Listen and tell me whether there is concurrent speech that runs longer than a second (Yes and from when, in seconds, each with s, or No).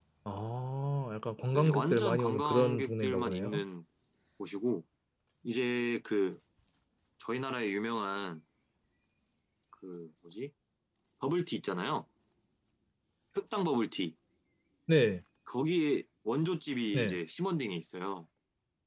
Yes, from 1.5 s